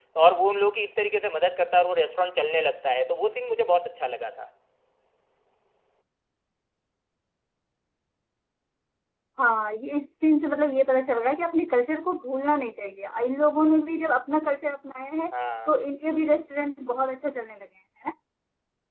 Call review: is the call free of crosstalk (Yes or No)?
Yes